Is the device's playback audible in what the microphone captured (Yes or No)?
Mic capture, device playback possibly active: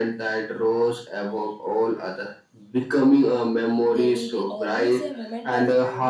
Yes